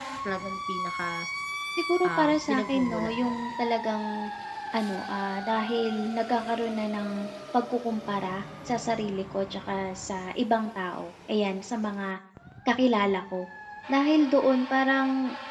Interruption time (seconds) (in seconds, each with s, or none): 2.0 s